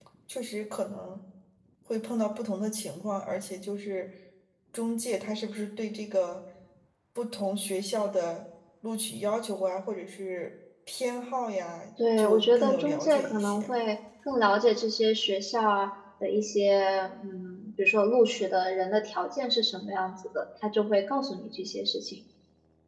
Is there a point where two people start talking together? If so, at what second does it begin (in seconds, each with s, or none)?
12.0 s